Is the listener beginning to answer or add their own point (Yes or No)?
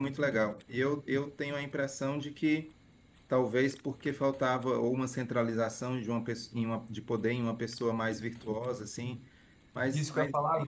Yes